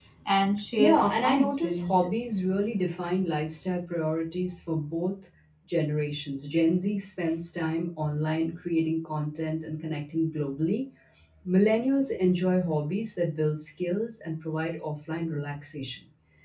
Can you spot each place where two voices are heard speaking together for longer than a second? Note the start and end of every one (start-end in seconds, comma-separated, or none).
0.8-2.1